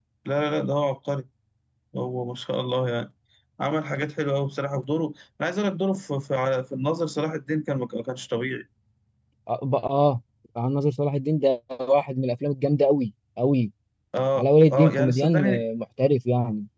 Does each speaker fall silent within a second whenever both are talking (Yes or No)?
No